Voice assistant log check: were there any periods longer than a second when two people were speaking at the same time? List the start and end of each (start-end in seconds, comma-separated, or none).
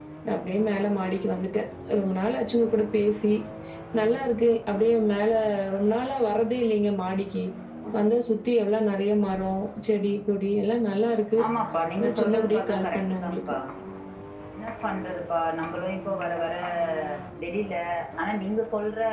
12.0-13.4